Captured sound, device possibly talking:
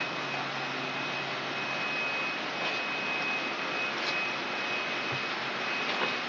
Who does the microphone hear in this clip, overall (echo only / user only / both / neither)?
neither